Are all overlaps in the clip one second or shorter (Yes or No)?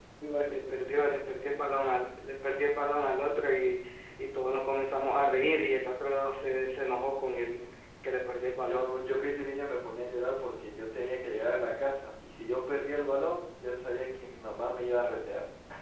Yes